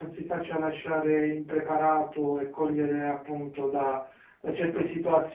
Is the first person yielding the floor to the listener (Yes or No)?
No